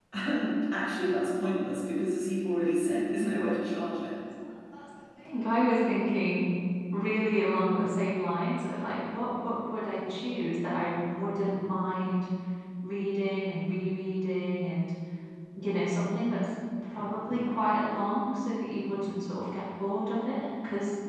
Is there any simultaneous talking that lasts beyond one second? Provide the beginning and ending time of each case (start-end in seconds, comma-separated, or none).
none